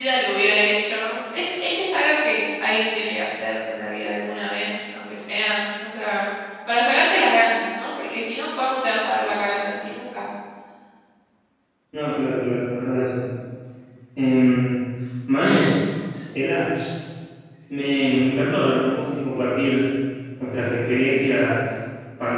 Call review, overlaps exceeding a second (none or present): none